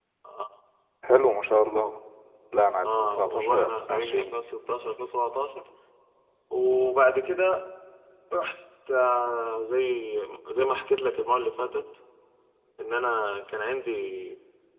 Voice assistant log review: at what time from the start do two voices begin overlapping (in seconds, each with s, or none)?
2.8 s